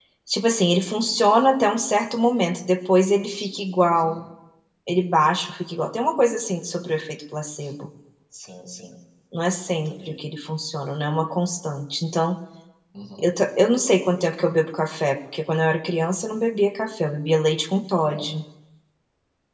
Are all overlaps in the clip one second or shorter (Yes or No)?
Yes